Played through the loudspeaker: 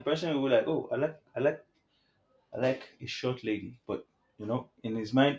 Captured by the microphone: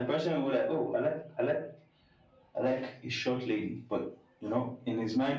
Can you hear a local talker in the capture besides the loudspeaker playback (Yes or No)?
No